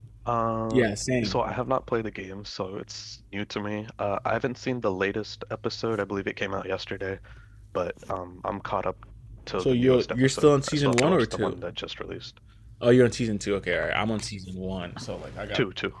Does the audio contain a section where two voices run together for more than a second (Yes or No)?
Yes